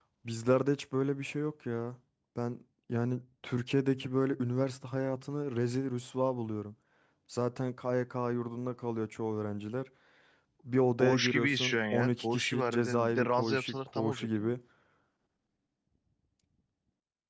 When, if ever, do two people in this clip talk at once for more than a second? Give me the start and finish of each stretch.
11.0-14.5

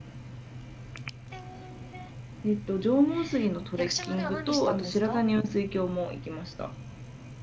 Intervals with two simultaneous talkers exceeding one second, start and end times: 3.8-5.2

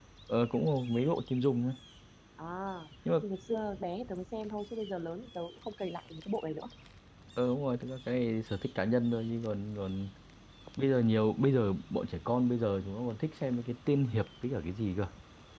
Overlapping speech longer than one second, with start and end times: none

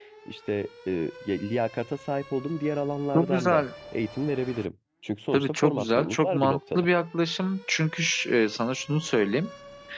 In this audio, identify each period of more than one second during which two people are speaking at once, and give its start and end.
5.3-6.8

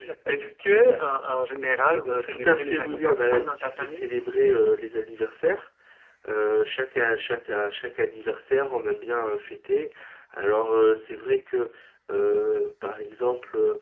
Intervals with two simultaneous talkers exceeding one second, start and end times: 2.0-4.1

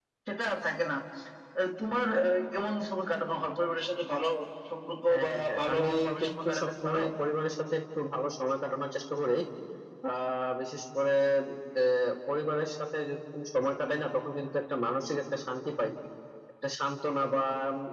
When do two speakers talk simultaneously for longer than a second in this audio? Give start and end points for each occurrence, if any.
5.1-7.0

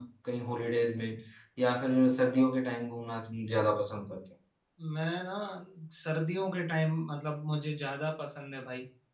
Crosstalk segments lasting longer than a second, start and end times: none

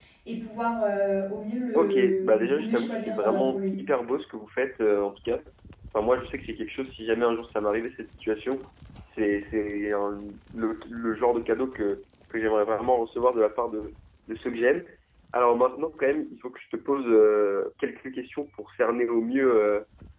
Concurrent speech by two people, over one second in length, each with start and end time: 1.7-3.7

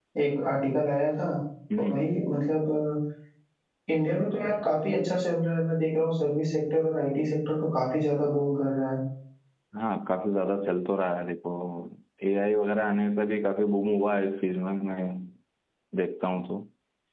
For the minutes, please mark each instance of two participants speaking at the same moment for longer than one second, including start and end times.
none

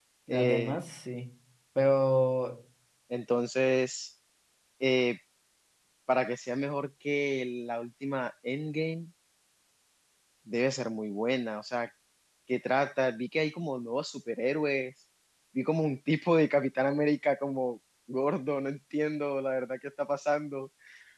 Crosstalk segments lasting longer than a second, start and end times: none

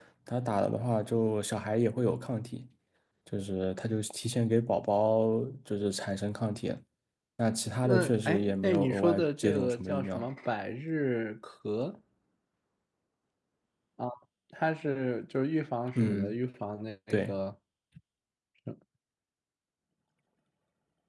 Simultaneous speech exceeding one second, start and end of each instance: 7.8-10.3

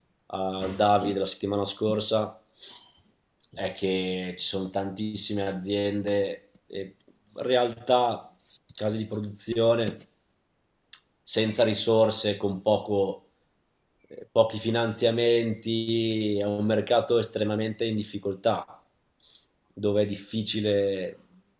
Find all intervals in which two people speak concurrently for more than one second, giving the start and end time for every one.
none

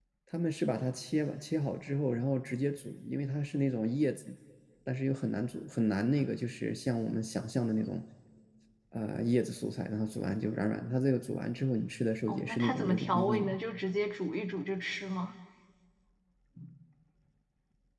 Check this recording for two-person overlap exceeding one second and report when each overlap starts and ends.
12.3-13.6

